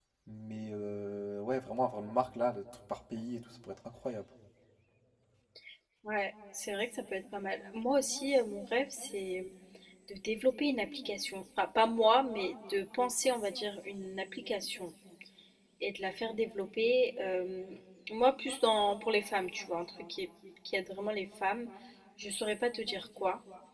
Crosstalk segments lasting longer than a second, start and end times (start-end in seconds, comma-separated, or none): none